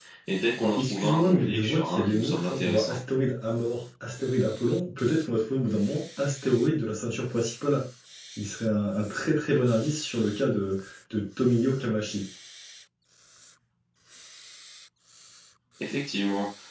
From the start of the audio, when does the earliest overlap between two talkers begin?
1 s

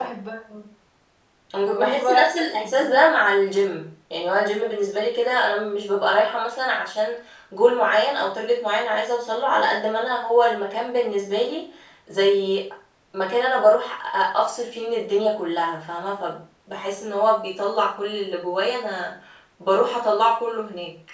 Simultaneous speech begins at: 2 s

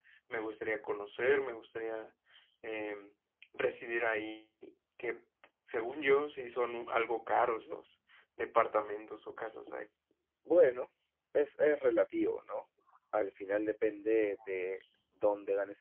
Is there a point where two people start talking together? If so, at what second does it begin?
none

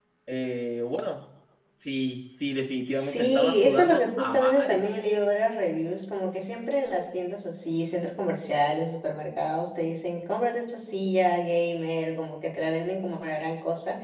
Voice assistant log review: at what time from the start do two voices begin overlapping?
3 s

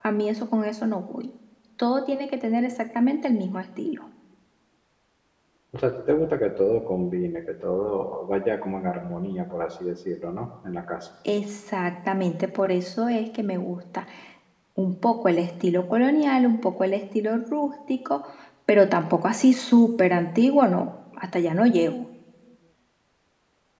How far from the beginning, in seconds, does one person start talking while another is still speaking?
none

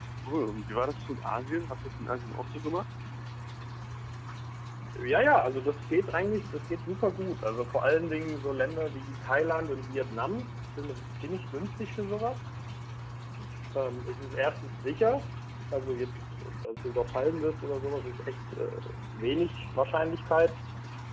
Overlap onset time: none

